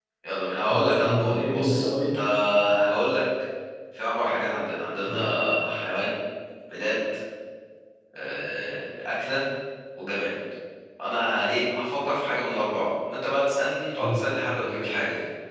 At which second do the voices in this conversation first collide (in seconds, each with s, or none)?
0.7 s